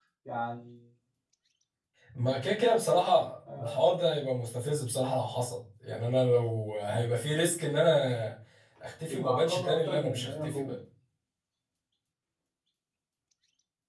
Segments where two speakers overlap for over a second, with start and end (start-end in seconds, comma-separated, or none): 9.1-10.7